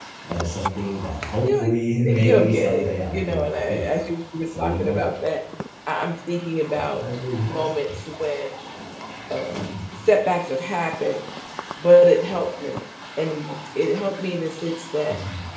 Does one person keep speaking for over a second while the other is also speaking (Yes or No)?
Yes